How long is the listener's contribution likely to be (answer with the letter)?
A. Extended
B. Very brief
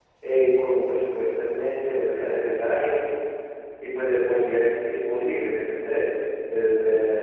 B